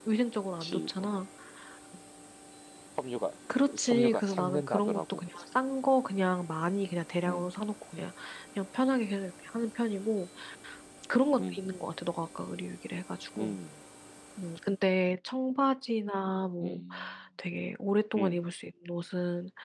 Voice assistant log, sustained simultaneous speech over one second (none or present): present